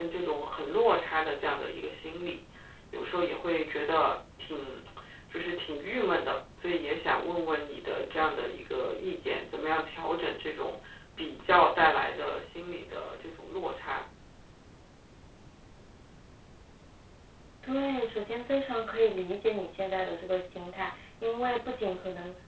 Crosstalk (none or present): none